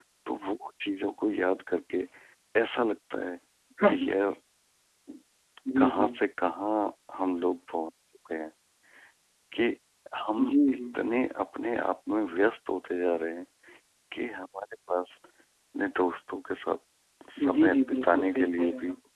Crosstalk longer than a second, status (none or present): present